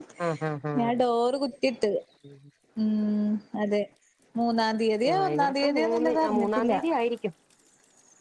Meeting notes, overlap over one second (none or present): present